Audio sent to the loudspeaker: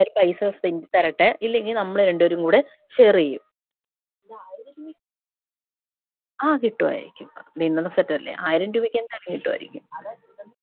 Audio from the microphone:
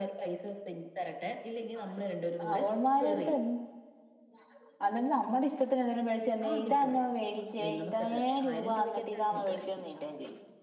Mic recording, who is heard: both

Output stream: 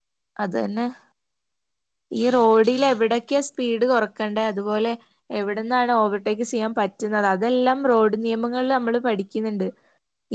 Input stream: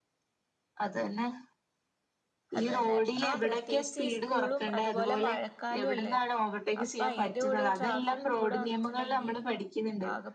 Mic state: both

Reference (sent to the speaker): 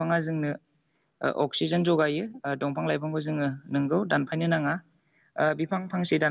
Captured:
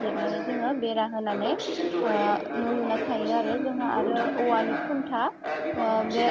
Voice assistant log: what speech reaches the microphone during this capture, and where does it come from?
both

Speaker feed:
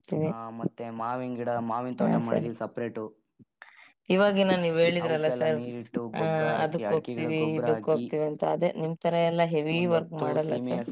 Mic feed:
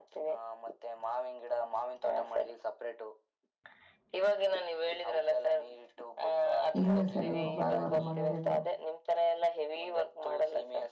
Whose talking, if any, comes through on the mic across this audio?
both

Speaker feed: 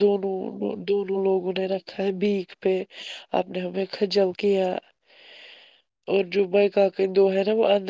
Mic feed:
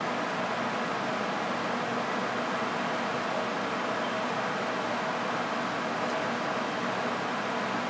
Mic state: neither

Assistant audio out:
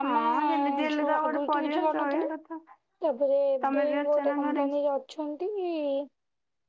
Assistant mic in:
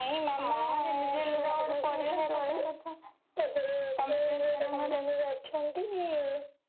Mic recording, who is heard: echo only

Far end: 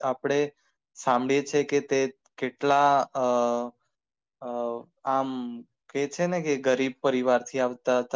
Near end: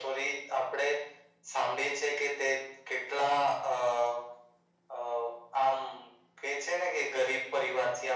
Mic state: echo only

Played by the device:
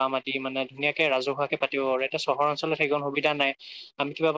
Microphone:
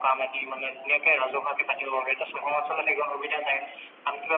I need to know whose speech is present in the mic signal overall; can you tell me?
echo only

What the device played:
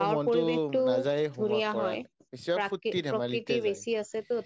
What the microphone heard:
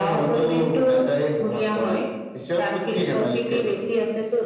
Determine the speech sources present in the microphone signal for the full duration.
echo only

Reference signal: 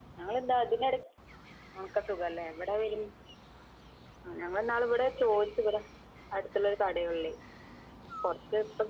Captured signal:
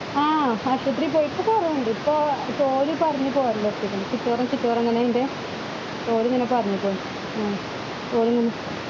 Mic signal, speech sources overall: user only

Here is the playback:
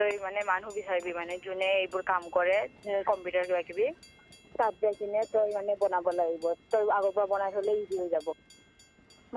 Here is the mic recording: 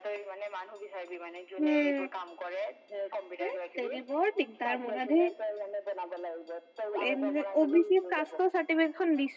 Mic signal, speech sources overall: both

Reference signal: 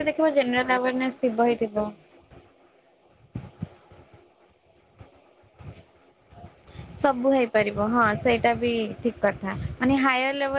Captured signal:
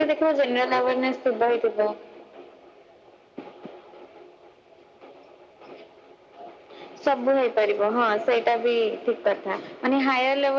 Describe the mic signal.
echo only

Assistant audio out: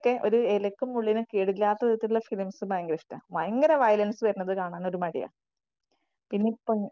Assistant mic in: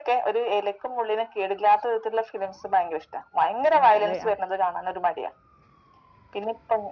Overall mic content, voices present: both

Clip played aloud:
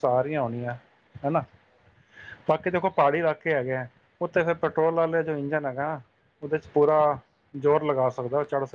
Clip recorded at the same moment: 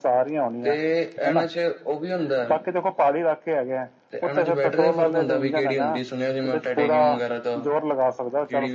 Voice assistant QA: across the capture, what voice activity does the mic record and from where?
both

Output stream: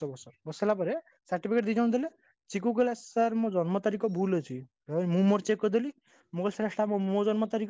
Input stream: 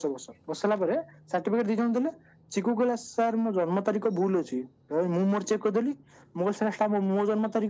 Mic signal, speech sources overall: echo only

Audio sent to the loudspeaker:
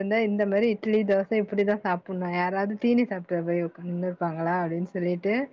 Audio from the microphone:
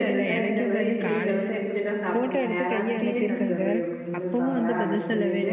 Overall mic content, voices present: both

